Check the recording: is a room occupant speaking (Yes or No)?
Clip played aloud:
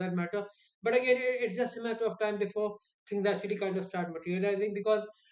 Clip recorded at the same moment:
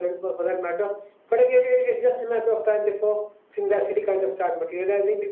No